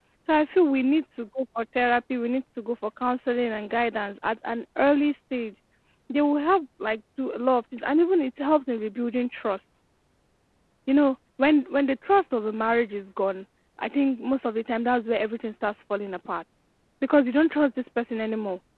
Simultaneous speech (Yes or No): No